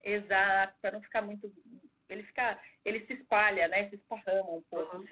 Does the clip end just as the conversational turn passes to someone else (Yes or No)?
Yes